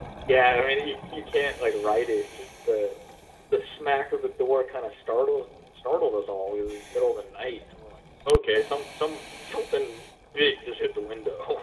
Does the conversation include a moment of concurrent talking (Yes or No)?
No